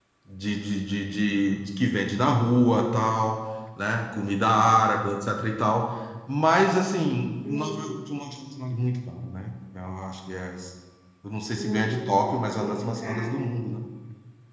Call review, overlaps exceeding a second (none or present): present